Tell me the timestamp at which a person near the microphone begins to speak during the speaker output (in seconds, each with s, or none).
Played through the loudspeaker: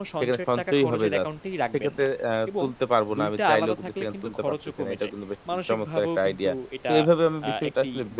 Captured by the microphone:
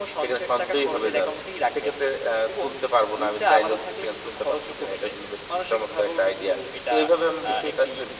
none